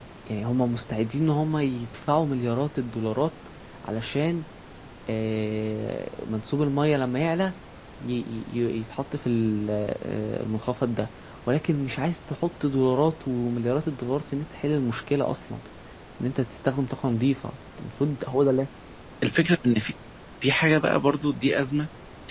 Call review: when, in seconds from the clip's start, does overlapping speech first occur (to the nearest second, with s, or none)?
none